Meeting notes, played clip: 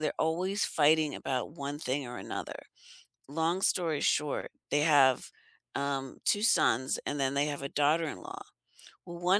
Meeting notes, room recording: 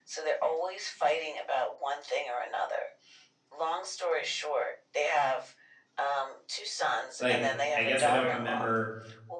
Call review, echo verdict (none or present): present